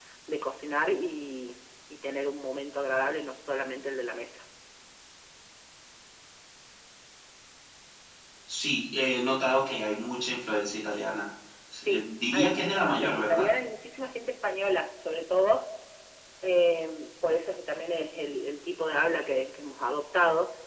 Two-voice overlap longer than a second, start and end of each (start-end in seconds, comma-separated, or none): 11.8-13.5